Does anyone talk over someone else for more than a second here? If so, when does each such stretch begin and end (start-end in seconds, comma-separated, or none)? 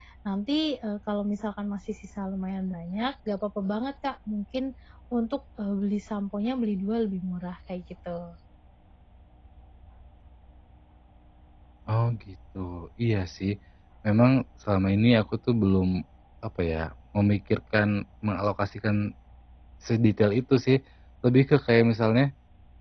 none